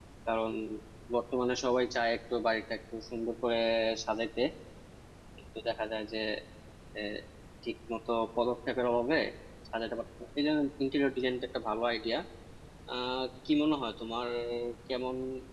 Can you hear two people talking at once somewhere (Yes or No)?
No